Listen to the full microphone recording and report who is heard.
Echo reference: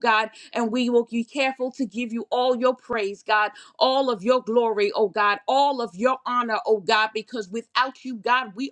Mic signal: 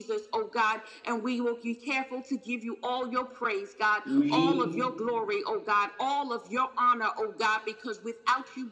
both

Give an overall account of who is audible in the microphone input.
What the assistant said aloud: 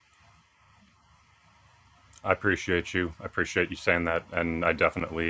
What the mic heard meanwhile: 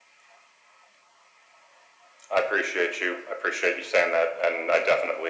echo only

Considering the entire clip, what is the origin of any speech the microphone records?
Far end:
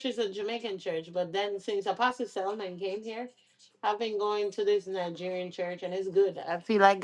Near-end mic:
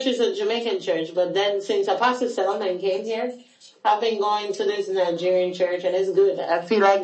echo only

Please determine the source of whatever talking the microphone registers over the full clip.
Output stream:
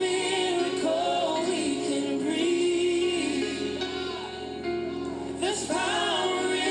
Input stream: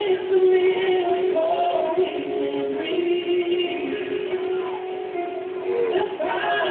both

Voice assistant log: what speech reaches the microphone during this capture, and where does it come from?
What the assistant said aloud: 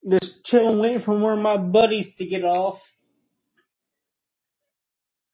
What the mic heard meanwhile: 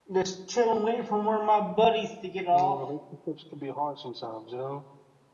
both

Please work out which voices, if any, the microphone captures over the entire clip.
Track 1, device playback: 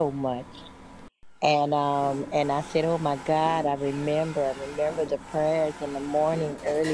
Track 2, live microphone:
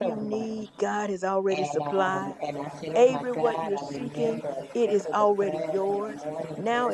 both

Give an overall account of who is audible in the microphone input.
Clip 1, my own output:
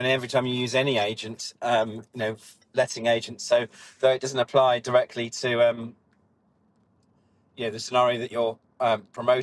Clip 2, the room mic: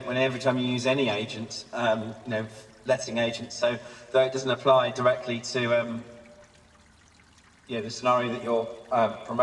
echo only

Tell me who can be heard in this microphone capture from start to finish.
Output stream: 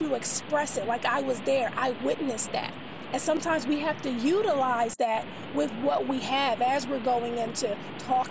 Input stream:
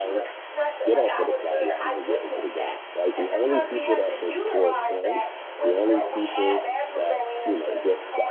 both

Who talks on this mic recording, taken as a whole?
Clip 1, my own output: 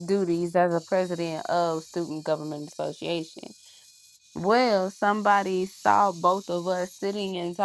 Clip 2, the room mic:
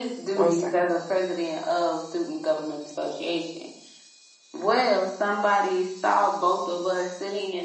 both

